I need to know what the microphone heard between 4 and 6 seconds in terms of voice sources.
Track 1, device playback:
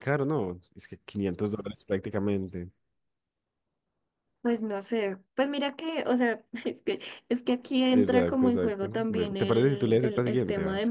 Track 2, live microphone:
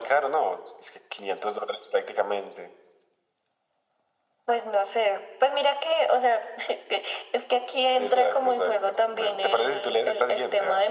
echo only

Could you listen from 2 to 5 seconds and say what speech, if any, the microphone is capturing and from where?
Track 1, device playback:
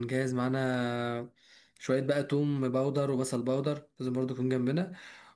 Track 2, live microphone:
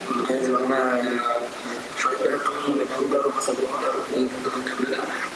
echo only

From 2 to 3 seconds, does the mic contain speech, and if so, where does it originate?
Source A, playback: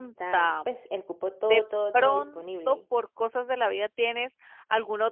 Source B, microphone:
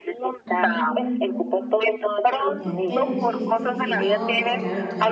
both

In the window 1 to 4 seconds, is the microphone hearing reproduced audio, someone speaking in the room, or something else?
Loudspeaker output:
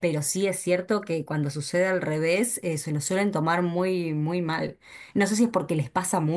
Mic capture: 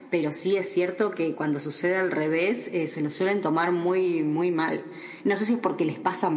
echo only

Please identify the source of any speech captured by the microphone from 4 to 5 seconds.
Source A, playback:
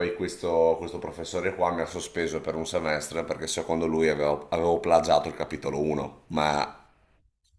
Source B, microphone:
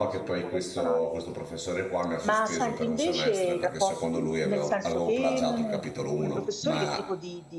both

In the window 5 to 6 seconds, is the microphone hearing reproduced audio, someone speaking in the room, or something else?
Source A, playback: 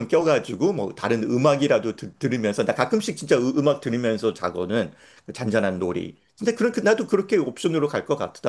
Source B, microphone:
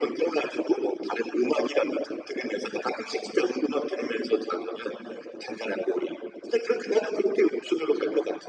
echo only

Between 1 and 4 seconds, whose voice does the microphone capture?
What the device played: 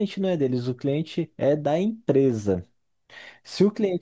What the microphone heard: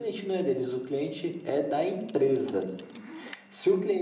echo only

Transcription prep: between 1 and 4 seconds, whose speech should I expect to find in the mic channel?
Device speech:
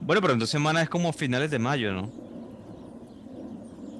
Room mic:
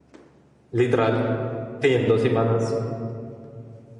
user only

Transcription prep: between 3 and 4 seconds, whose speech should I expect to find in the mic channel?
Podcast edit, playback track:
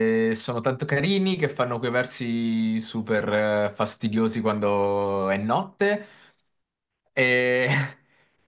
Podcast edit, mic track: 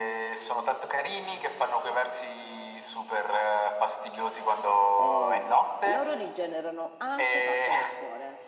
echo only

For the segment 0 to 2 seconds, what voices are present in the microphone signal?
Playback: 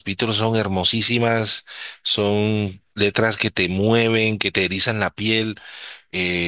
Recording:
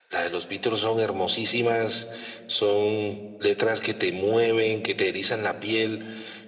echo only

